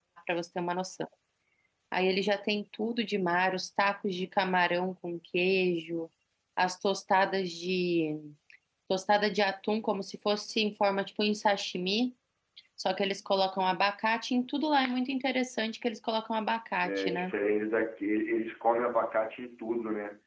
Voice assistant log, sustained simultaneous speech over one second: none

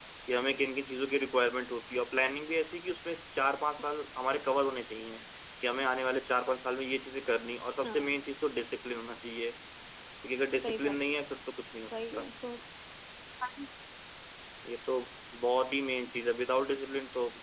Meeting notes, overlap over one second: none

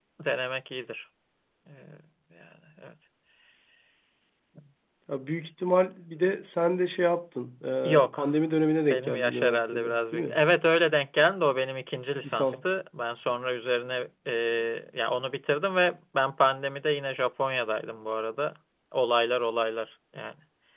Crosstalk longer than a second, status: present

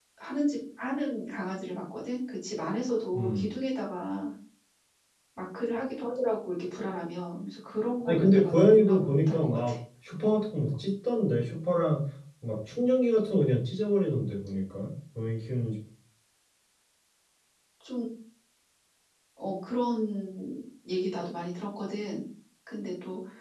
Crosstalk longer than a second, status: present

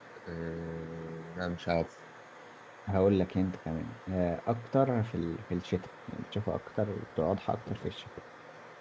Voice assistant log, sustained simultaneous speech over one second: none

